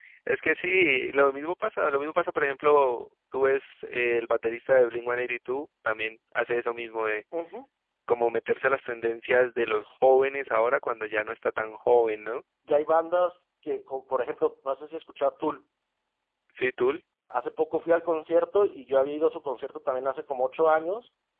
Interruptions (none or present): none